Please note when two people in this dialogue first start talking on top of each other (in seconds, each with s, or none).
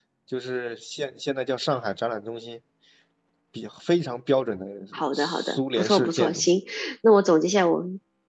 5.1 s